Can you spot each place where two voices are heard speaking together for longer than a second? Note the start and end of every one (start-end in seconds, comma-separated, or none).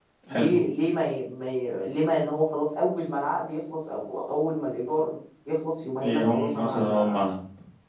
6.0-7.2